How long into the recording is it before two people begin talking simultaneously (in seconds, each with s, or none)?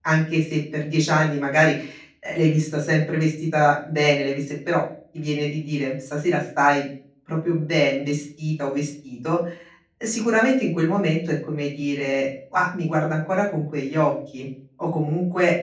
none